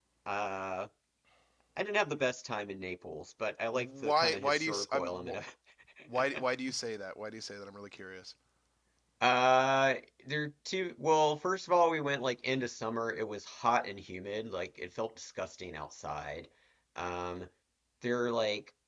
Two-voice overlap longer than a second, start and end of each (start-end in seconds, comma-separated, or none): 3.7-5.2